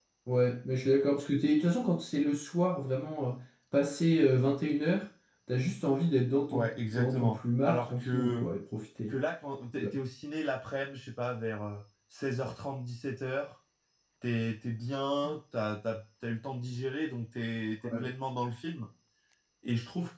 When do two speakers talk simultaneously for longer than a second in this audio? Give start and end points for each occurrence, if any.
6.5-8.5

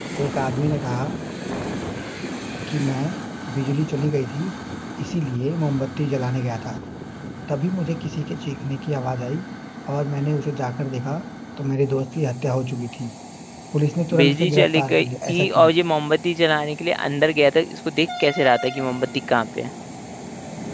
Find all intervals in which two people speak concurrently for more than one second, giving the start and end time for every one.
14.2-15.7

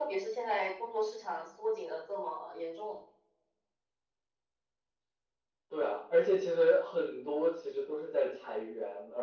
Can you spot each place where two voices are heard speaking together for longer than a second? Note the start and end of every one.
none

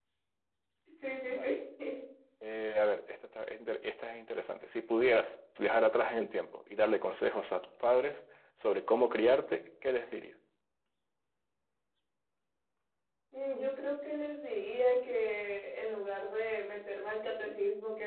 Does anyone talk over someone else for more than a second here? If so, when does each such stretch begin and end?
none

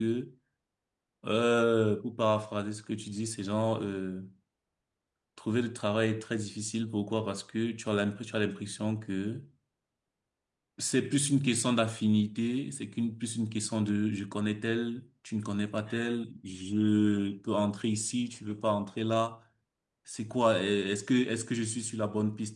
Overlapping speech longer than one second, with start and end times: none

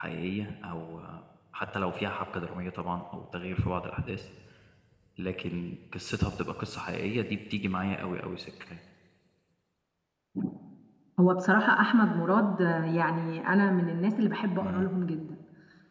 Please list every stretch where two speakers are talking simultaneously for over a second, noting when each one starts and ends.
none

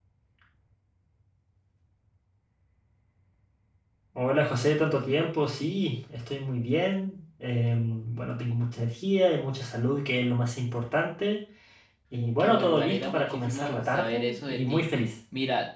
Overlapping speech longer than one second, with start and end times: 12.4-14.8

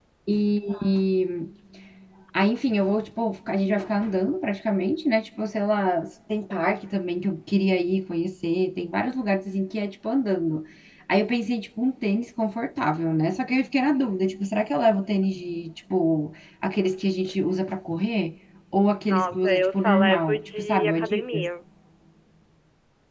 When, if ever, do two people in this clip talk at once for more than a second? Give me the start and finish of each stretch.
19.1-21.5

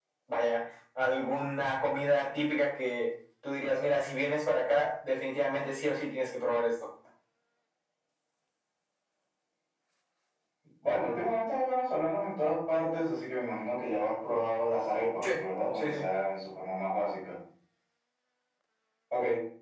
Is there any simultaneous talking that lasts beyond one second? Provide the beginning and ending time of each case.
none

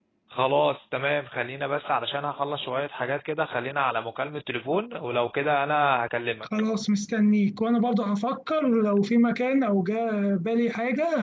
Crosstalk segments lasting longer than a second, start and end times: none

